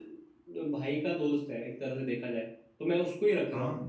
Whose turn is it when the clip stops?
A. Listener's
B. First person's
B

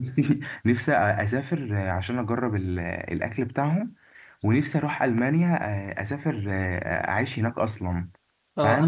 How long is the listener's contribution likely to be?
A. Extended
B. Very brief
A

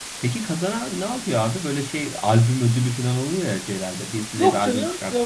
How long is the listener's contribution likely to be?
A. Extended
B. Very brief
A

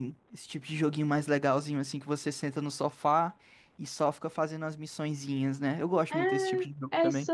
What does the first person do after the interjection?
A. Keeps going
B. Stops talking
B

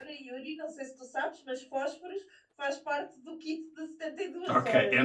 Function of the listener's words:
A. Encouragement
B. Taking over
B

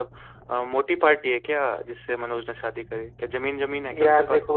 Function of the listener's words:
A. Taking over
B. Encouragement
A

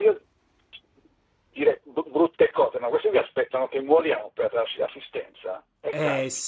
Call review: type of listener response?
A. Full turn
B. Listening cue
A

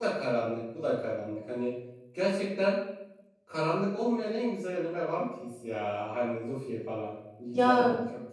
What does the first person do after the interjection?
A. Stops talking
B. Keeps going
A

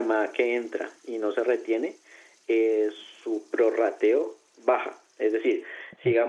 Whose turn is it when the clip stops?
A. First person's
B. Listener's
B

